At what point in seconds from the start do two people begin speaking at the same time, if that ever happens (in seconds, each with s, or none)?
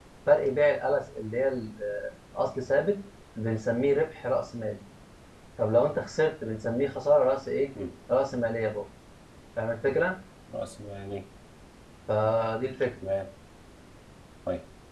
none